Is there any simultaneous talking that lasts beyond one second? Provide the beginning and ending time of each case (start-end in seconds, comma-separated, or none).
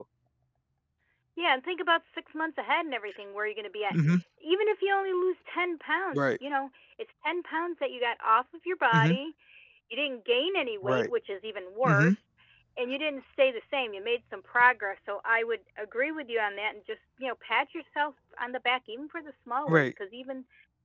none